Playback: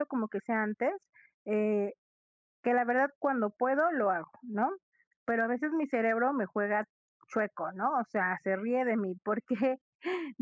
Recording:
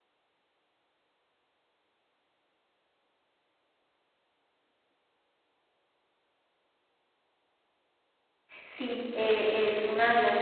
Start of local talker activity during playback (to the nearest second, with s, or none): 9 s